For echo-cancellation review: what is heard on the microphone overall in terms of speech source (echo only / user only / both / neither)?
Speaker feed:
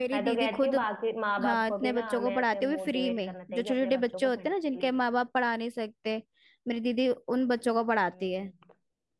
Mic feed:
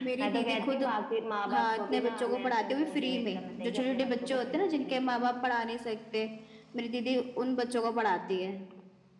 echo only